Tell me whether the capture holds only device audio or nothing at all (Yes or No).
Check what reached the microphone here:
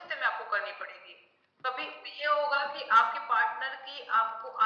Yes